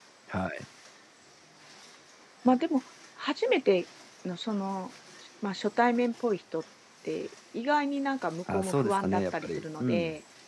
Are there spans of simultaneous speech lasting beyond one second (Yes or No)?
Yes